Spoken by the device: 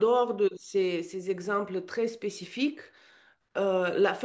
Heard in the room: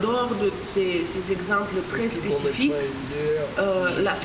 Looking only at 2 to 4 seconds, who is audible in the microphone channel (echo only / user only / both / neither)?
both